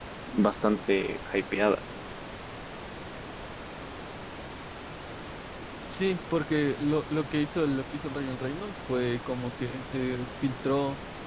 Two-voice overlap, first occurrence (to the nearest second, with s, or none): none